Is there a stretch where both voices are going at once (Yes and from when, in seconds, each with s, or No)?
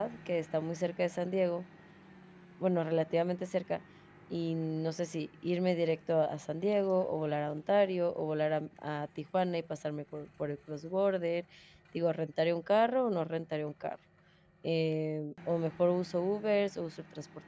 No